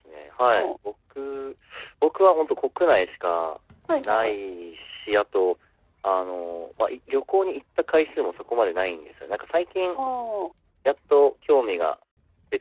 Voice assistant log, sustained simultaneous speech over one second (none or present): none